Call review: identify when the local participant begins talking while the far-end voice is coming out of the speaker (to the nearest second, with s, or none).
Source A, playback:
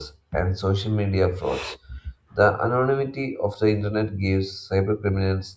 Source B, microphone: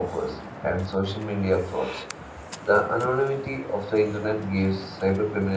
none